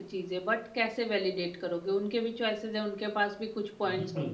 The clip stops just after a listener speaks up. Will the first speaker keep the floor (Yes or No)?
No